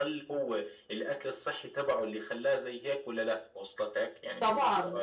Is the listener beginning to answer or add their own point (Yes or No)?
Yes